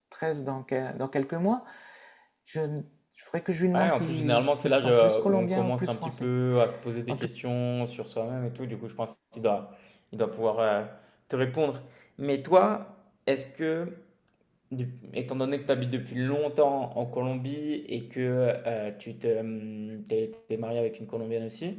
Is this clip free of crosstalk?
No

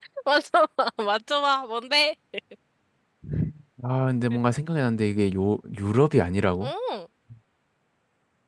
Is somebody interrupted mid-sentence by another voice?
No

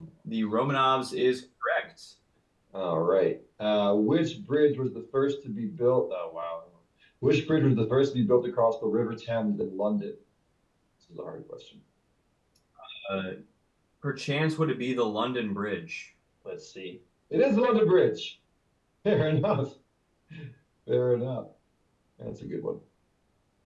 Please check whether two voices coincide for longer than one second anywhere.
No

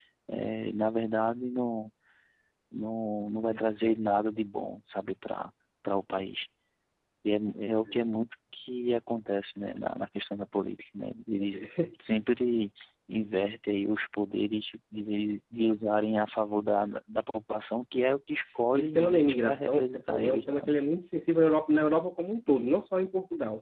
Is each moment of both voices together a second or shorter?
No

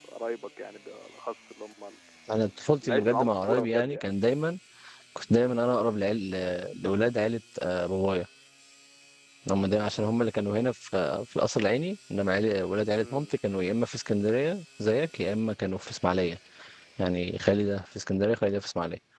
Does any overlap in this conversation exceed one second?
Yes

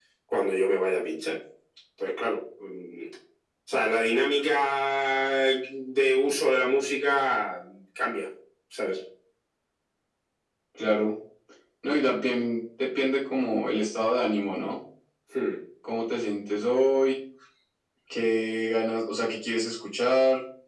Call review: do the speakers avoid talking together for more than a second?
Yes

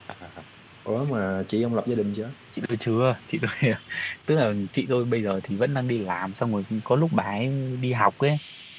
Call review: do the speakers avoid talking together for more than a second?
Yes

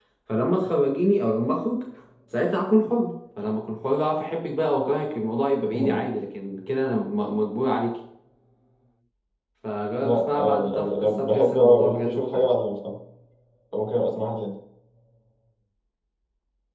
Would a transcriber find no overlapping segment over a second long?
No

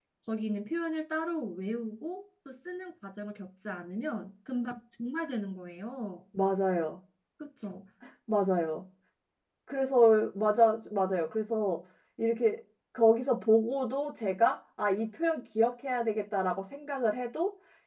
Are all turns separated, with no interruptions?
Yes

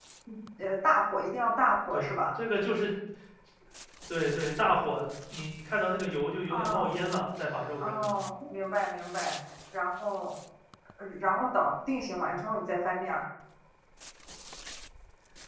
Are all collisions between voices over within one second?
Yes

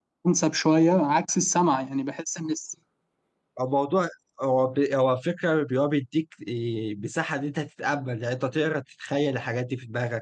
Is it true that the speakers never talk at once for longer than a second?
Yes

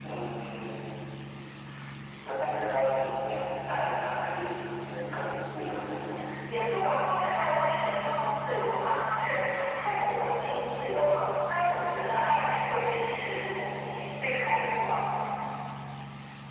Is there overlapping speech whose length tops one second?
No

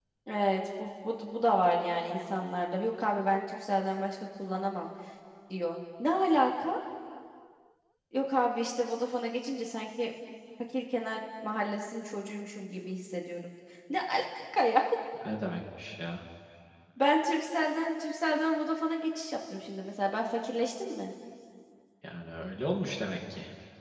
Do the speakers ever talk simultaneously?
No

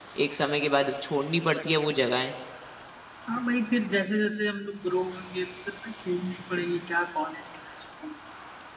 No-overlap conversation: Yes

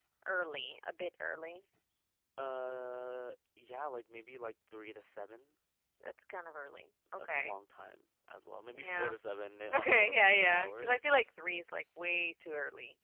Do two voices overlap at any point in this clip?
Yes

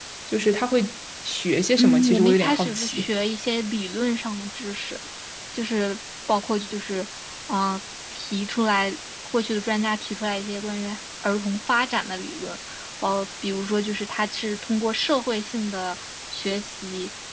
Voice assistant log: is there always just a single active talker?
No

